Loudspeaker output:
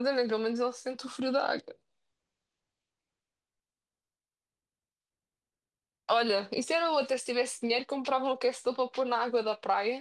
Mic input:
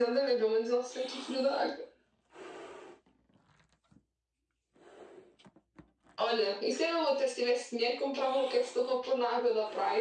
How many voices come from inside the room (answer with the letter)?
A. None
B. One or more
A